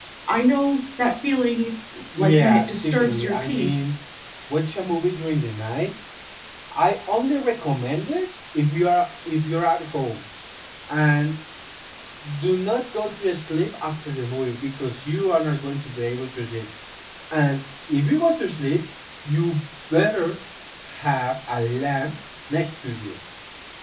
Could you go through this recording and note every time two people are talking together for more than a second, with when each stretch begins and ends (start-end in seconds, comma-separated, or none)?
2.2-3.9